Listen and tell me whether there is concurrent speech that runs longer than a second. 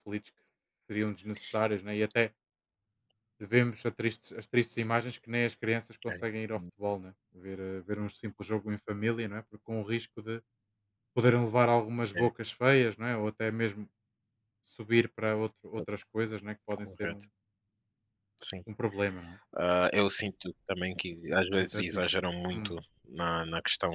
No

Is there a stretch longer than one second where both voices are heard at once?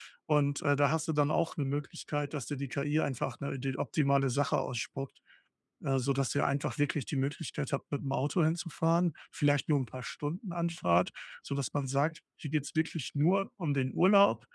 No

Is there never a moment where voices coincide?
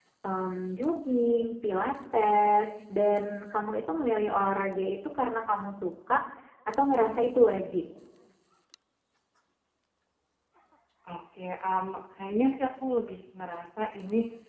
Yes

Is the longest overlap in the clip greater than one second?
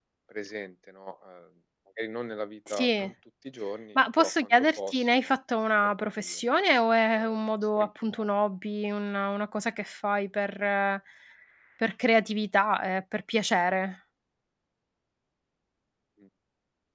Yes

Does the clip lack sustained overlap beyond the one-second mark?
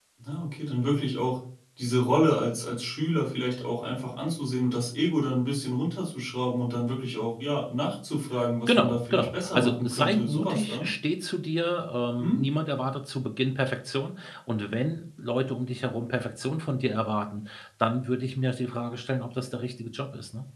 No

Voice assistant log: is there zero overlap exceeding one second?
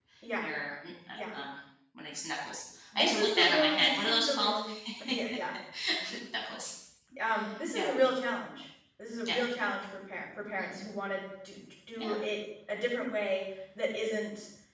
No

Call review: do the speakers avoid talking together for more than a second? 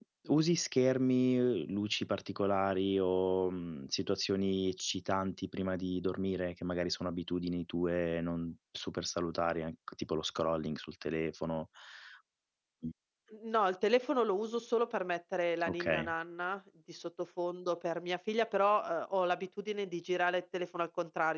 Yes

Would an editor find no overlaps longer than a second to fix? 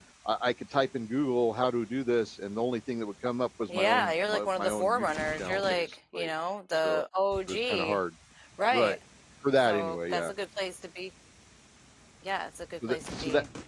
No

